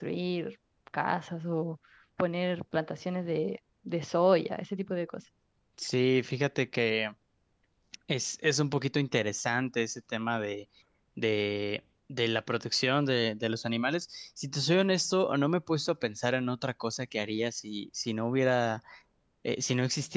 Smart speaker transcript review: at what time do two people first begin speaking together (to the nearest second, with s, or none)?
none